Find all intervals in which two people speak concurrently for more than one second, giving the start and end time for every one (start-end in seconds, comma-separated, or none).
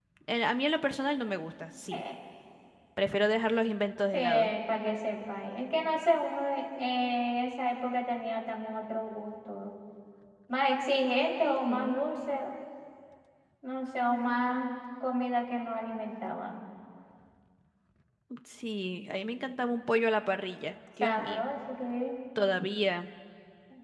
none